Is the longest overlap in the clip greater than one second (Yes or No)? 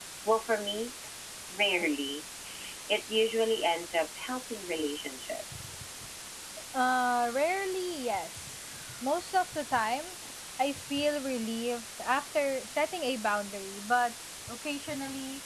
No